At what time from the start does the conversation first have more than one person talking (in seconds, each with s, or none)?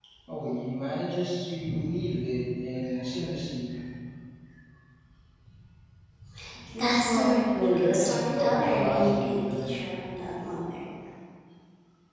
6.8 s